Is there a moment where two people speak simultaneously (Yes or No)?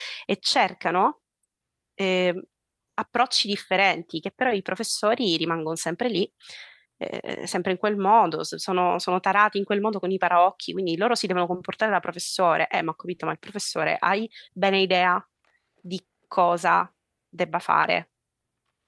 No